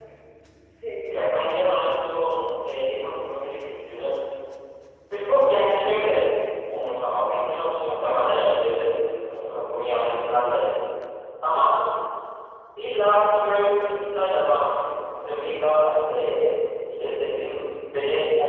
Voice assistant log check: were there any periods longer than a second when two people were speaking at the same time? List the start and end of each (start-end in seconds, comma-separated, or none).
1.2-2.7